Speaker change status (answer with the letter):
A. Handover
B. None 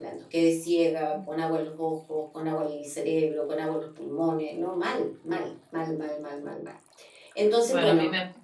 A